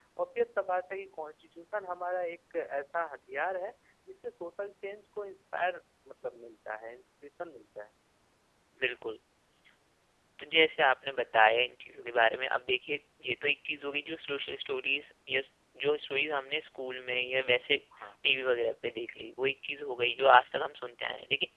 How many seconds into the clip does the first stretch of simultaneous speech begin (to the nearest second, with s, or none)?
none